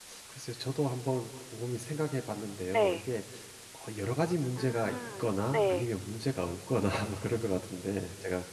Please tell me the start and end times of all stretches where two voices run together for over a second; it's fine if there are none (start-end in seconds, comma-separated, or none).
4.6-5.9